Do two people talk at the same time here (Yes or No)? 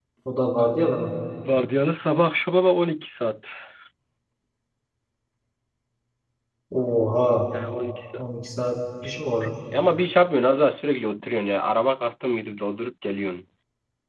No